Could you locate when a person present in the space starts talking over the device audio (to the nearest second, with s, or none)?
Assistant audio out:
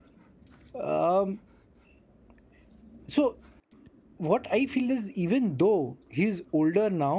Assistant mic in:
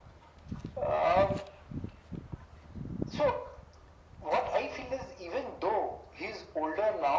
none